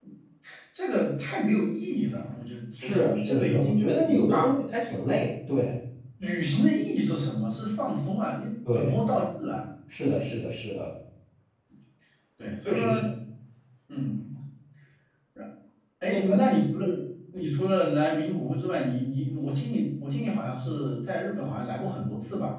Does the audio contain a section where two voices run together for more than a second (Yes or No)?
Yes